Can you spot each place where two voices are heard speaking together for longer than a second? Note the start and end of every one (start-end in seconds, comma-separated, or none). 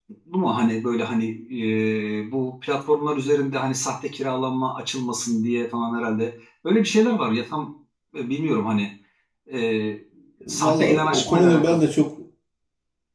10.5-11.8